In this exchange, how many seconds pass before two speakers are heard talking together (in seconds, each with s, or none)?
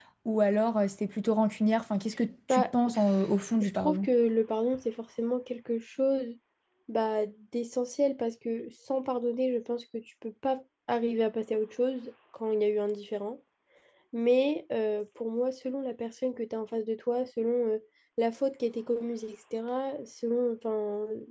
2.5 s